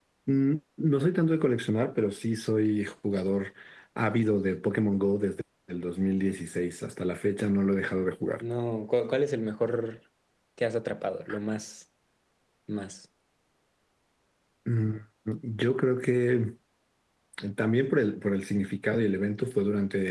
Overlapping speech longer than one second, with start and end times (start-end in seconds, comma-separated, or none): none